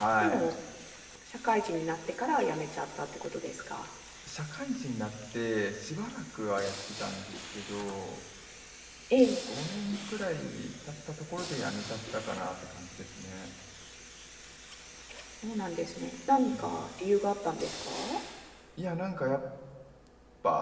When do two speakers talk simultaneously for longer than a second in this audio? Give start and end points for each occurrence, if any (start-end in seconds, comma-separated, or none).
none